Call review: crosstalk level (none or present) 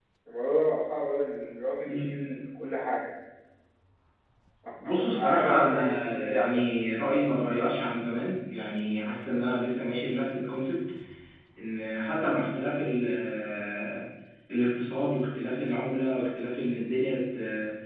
present